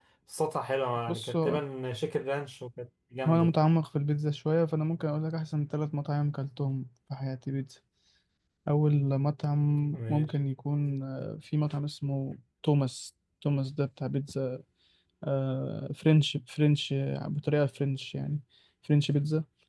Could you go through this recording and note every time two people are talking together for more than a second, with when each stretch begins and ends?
none

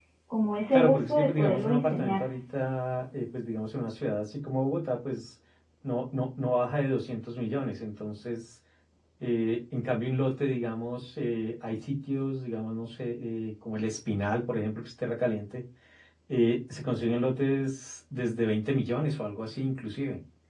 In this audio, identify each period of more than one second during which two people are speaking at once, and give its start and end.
0.7-2.2

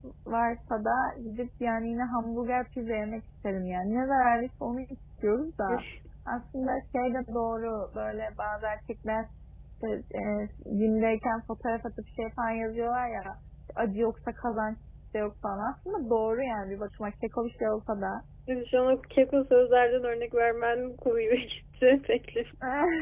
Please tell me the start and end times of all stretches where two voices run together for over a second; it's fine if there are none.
none

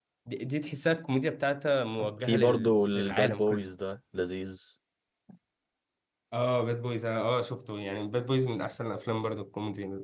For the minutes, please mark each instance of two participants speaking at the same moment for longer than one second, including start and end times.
2.3-3.6

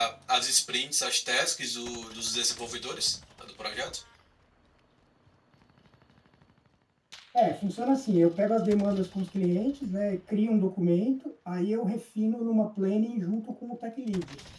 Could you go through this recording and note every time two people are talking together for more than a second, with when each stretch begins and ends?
none

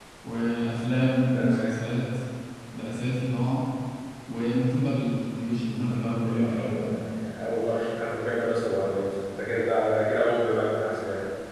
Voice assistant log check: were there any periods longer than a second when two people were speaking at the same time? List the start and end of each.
none

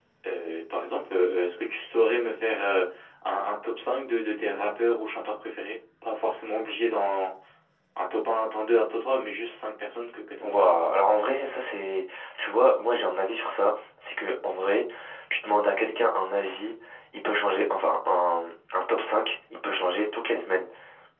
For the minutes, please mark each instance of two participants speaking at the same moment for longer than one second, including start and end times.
none

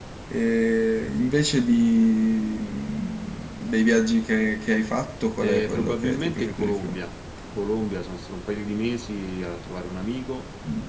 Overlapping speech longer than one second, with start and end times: 5.4-6.9

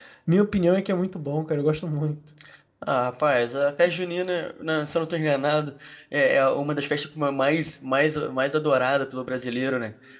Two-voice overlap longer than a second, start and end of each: none

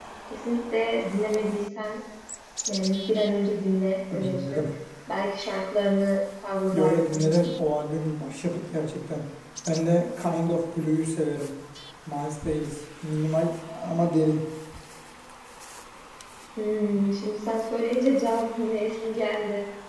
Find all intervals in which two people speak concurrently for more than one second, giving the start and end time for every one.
none

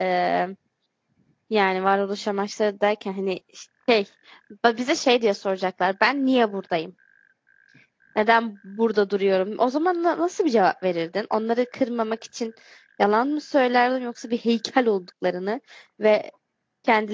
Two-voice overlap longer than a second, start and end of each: none

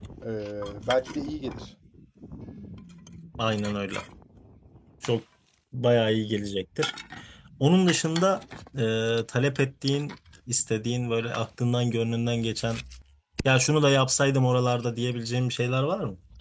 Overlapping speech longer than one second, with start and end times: none

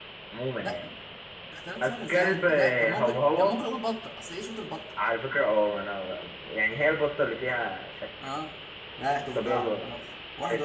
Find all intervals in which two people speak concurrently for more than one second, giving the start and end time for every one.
1.8-3.6

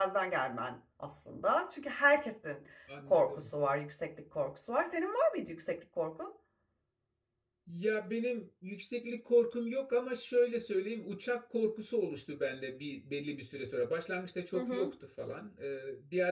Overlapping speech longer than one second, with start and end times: none

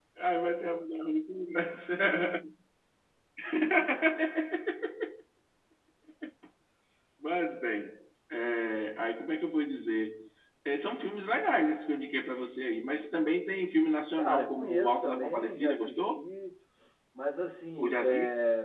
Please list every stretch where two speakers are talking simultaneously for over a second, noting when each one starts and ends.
14.2-16.2

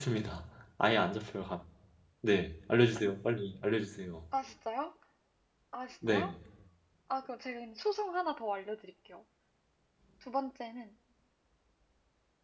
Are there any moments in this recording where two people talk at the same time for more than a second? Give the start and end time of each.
none

